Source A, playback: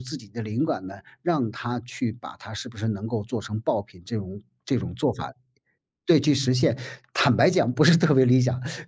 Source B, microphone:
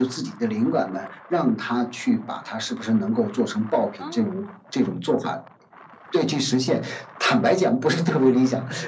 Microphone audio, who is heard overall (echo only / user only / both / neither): both